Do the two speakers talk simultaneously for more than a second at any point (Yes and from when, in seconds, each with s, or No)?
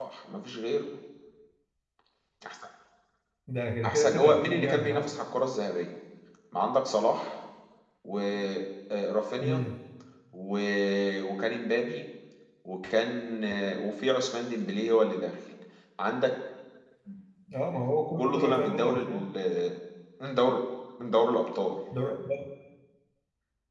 Yes, from 3.8 s